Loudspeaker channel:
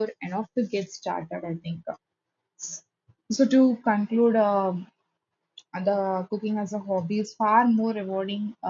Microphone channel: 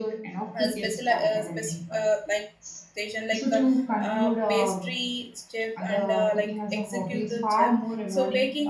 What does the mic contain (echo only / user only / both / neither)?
both